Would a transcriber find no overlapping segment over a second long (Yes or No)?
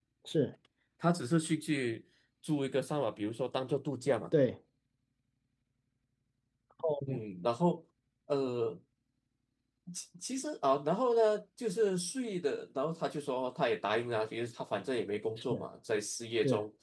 Yes